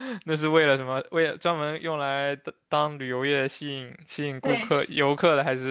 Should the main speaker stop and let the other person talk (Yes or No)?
No